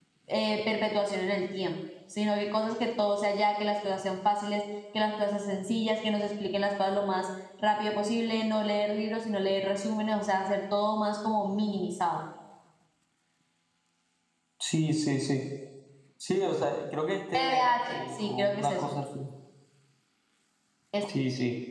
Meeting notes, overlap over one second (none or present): present